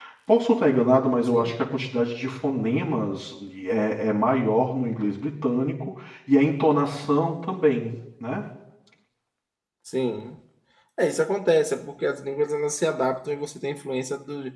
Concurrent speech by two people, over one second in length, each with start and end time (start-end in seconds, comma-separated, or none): none